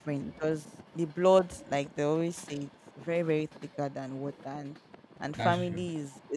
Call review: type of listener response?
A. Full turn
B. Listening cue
B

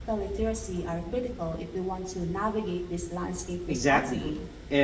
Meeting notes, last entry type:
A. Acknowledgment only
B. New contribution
B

